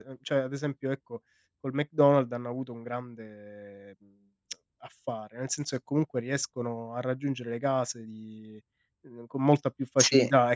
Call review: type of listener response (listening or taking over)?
listening